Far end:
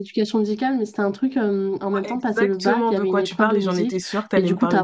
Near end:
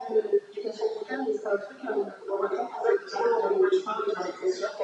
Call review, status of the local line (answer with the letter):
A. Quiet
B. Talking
A